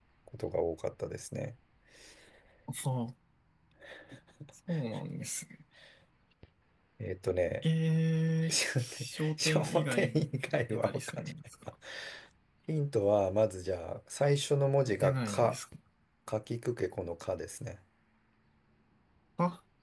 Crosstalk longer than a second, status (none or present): present